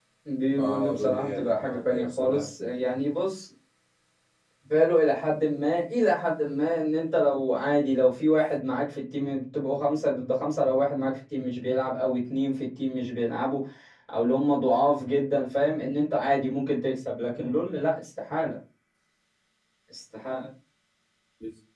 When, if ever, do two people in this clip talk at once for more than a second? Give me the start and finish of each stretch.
0.6-2.5

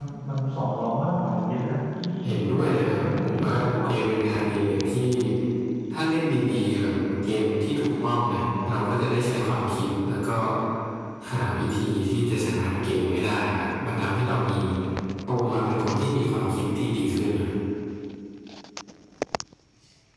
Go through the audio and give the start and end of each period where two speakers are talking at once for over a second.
2.2-3.9

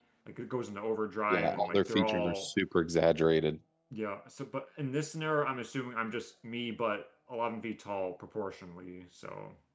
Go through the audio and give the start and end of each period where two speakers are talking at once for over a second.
1.3-2.5

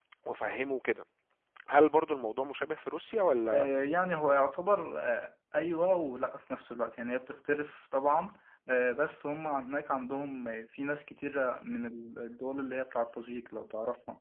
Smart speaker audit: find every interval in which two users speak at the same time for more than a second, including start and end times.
none

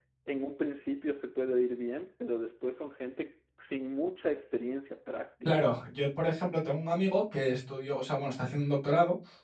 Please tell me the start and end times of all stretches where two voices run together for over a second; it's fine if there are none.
none

